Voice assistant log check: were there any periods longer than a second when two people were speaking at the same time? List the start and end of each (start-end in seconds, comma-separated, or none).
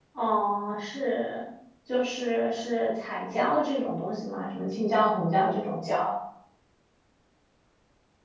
none